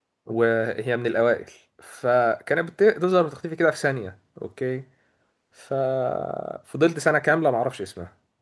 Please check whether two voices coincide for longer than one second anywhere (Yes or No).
No